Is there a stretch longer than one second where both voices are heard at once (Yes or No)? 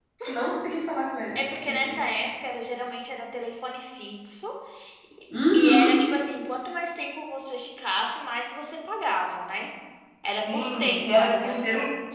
Yes